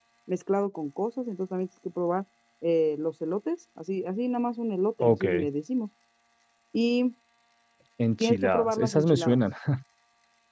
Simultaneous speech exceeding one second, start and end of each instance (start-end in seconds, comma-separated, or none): 8.2-9.4